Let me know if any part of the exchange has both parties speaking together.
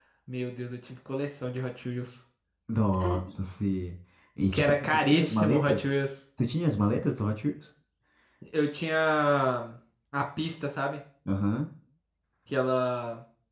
Yes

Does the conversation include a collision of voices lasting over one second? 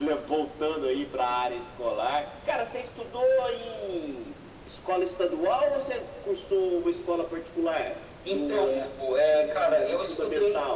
Yes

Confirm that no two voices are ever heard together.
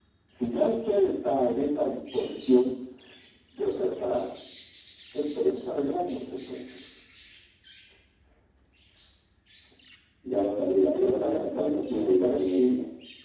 No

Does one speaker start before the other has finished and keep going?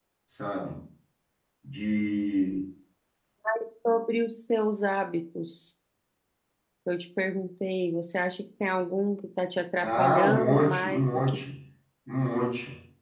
Yes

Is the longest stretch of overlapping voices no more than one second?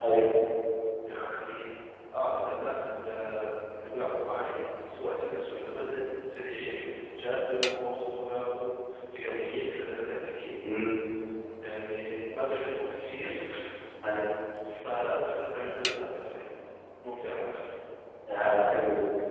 Yes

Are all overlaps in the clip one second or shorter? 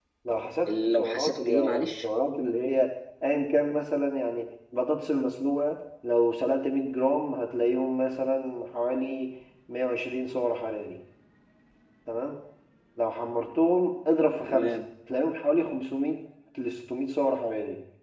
No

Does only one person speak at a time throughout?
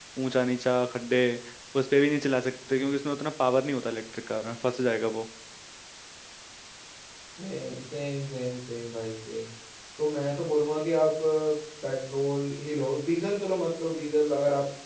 Yes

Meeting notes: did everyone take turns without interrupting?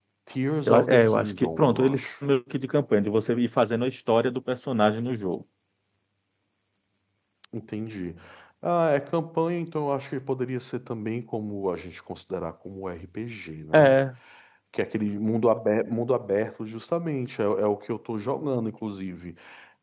No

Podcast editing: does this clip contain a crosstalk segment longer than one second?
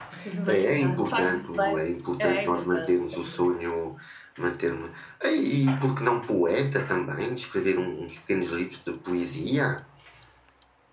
Yes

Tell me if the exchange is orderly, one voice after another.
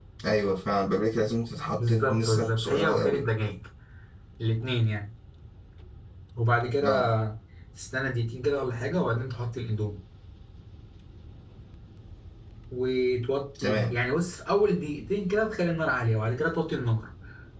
No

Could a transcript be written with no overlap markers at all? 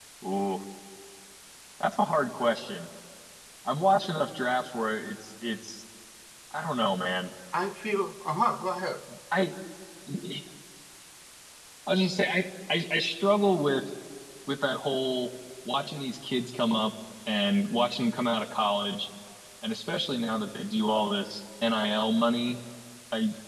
Yes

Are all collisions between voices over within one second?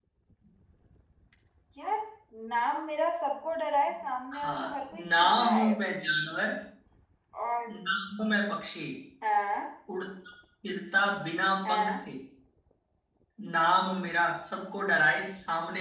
No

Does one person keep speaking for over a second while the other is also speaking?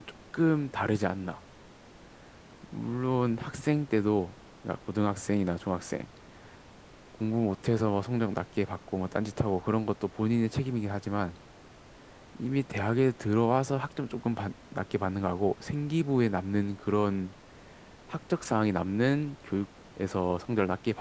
No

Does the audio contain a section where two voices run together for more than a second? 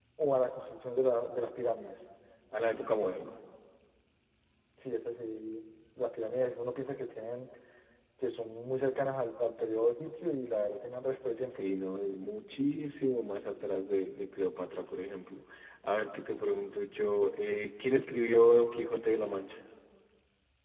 No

